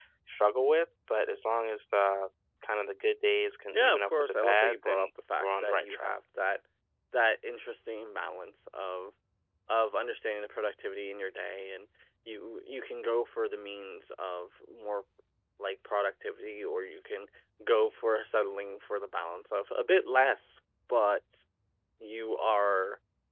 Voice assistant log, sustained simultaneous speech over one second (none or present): present